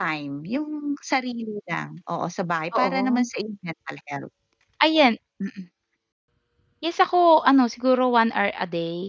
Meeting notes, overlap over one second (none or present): none